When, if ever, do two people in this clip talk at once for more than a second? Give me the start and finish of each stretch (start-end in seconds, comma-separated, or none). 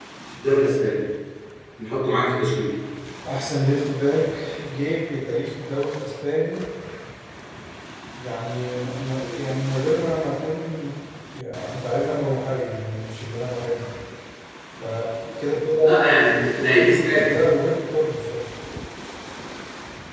none